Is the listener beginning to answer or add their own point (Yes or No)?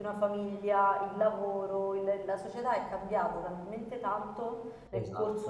No